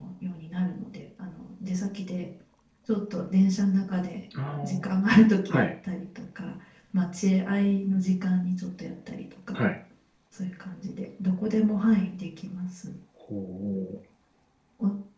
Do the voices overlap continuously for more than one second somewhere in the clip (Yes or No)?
No